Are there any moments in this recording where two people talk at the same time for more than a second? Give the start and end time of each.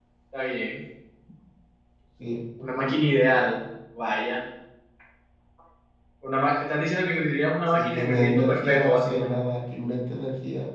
7.7-9.3

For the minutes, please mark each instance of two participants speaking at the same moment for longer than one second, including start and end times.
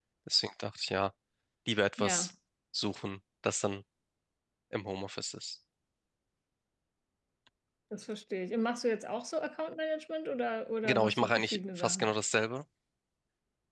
10.8-12.1

